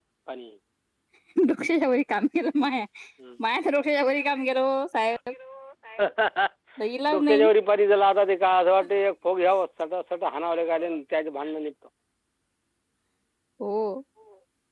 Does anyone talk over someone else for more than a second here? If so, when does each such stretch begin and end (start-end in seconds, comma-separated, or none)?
none